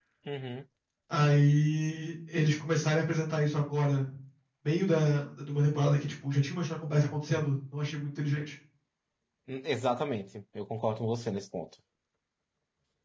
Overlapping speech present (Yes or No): No